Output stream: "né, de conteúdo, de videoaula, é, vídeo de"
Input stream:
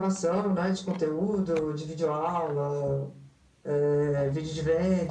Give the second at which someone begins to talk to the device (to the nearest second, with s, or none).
none